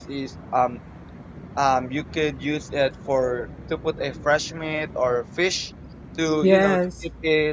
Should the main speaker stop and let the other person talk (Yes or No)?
No